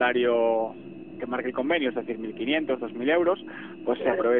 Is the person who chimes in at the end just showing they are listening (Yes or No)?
Yes